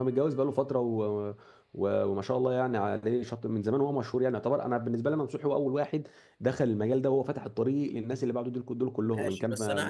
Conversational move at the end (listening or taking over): taking over